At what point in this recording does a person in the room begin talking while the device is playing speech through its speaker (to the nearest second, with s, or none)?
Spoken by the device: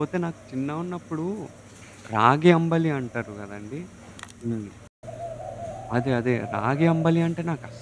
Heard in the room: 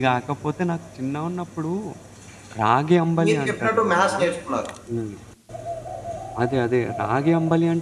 3 s